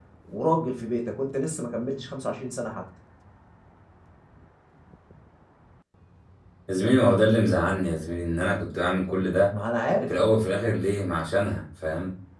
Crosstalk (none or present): none